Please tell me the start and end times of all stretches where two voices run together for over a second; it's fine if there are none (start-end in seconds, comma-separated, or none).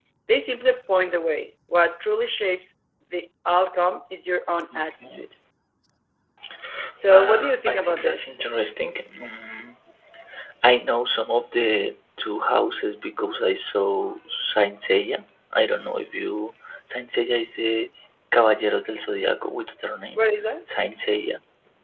7.1-8.3